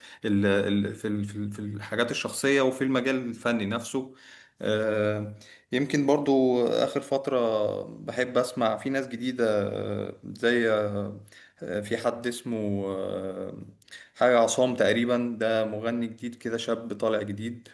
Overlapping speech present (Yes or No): No